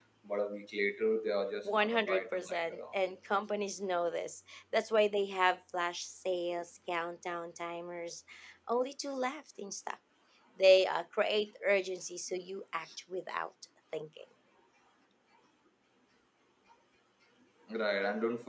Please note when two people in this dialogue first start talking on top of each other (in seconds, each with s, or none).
1.6 s